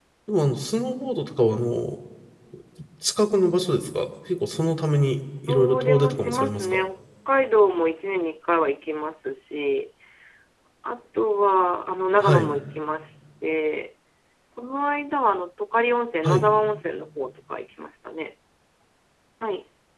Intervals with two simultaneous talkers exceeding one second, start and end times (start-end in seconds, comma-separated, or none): 5.5-6.9